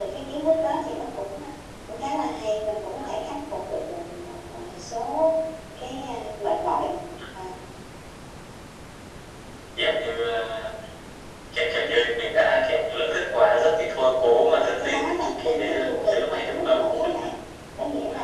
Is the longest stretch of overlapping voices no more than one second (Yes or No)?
No